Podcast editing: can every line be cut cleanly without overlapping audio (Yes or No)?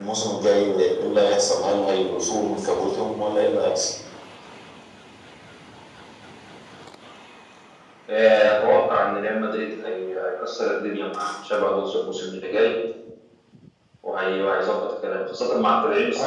Yes